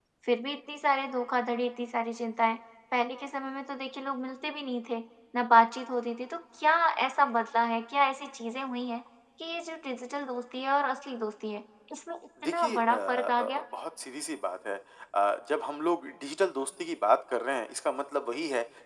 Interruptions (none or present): present